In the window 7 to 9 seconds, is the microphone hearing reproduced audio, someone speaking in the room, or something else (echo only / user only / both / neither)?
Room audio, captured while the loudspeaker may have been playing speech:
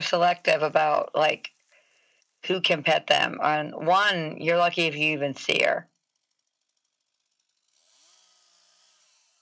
neither